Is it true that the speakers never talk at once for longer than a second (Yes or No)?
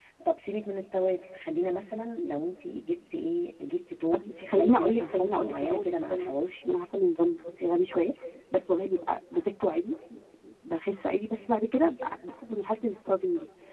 No